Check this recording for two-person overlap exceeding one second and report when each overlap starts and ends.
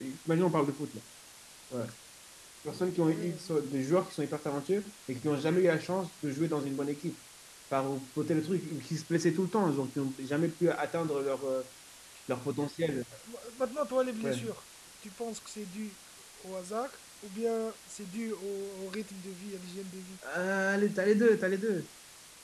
none

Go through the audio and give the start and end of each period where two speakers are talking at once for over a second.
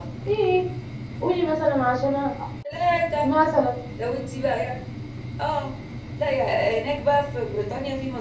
none

